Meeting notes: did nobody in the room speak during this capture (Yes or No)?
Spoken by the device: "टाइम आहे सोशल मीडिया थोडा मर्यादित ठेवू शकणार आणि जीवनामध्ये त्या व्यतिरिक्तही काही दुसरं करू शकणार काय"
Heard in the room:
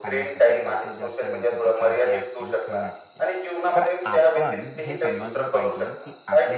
No